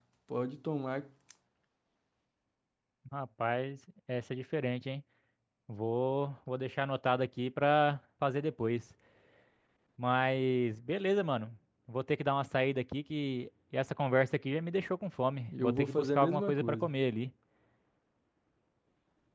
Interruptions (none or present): present